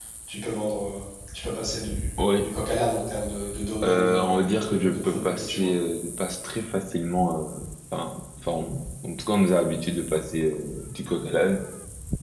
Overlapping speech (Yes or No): Yes